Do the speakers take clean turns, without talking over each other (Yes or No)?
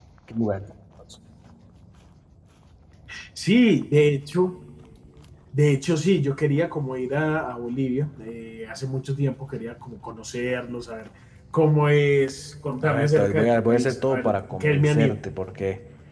No